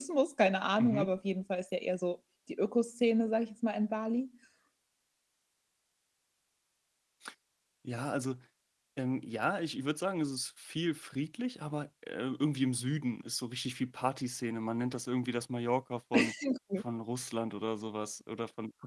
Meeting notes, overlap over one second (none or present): none